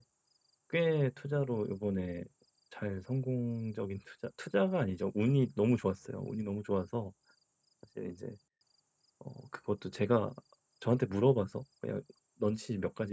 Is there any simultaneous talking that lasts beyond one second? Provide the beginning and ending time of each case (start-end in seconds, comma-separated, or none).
none